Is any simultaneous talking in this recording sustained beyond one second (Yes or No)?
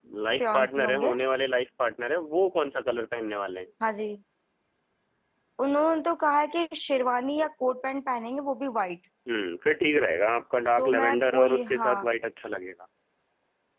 Yes